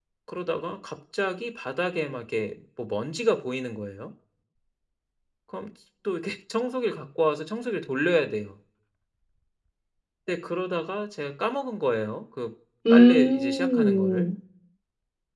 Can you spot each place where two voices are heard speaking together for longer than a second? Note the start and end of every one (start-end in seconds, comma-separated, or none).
12.9-14.3